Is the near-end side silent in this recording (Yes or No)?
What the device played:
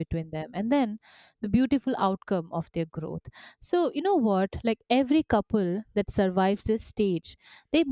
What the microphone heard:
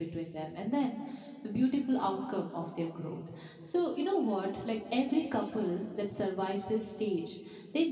Yes